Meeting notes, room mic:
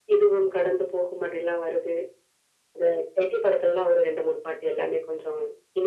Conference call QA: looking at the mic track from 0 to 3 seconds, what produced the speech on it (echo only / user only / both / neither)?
echo only